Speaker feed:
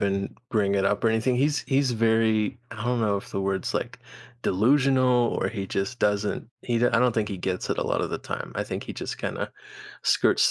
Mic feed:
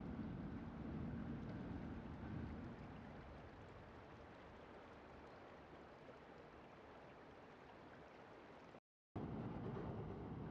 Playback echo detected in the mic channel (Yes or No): No